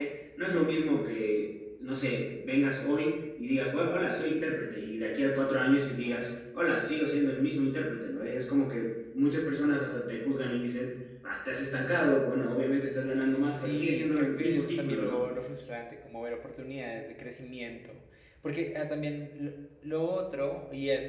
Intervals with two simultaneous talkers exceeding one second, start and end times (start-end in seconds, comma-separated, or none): 13.5-15.2